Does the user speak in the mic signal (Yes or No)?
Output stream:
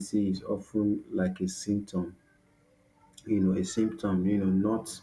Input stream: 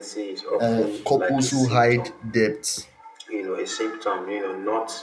Yes